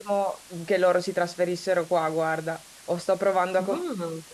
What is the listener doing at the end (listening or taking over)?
listening